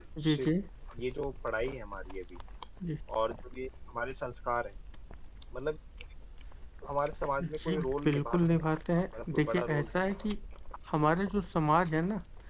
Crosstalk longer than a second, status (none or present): present